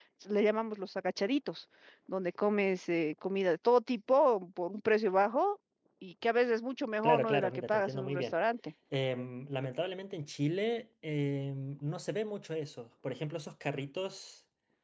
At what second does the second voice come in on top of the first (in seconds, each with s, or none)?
7.0 s